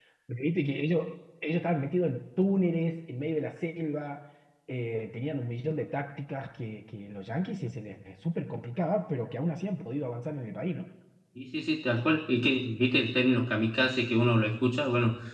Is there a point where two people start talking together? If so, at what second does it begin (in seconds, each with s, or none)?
none